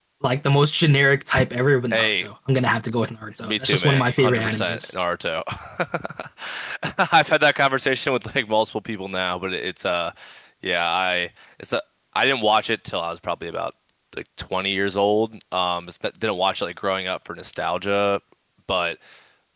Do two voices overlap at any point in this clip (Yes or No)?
Yes